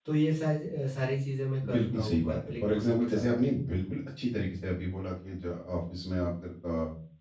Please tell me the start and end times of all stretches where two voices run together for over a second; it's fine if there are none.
1.7-3.2

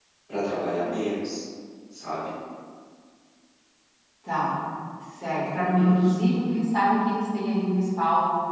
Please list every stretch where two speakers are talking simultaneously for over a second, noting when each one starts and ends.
none

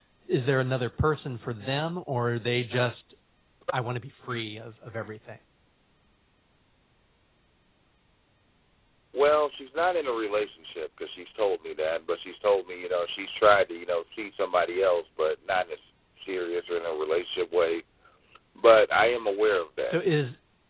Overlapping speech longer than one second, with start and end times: none

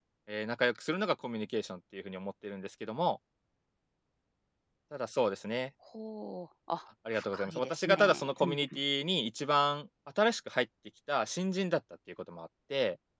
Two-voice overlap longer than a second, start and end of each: 7.1-8.8

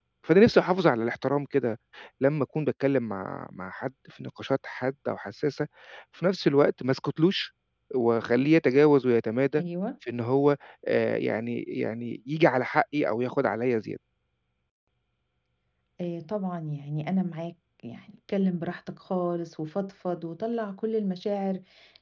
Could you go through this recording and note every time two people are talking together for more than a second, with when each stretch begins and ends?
none

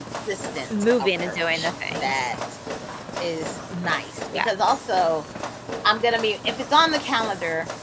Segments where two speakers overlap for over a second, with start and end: 1.0-2.3

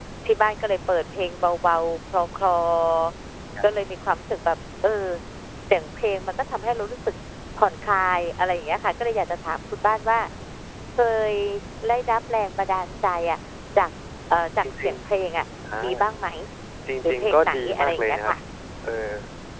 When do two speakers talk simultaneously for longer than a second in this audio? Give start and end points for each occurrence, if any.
17.0-18.3

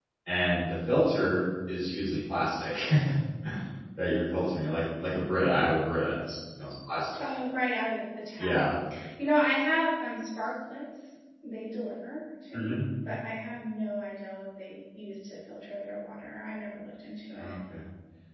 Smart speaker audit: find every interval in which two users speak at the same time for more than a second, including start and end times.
none

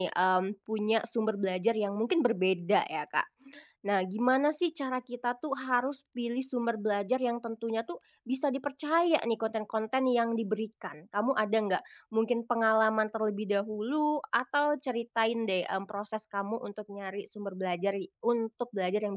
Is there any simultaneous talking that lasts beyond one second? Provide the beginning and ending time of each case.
none

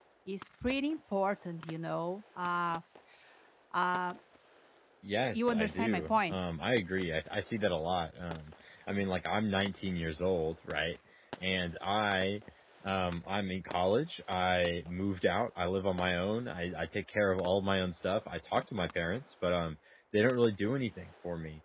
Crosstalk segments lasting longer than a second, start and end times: 5.2-6.4

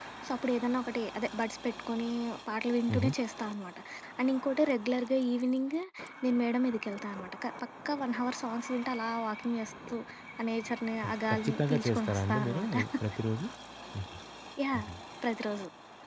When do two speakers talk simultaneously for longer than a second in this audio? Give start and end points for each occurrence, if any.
11.1-12.7

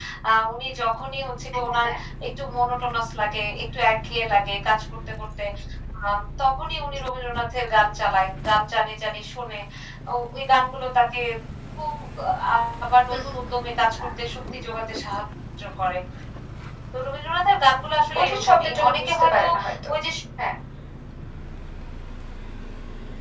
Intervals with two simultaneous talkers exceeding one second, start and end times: 18.1-19.4

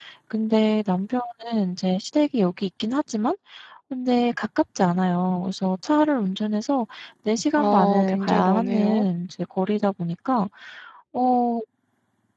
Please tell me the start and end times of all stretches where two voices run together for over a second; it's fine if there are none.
7.6-9.1

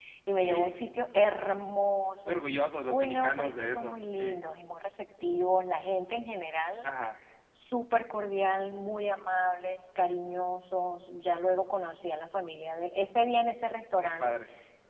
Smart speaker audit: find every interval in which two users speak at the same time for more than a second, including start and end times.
2.9-4.4

